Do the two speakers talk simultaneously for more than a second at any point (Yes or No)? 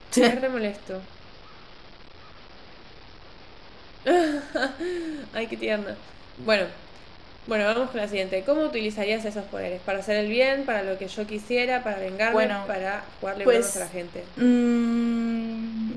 No